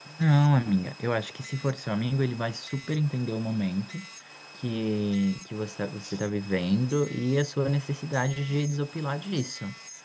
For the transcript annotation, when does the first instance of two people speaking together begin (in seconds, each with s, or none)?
none